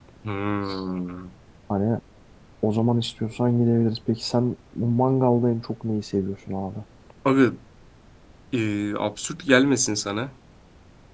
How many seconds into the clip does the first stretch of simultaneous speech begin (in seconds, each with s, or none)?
none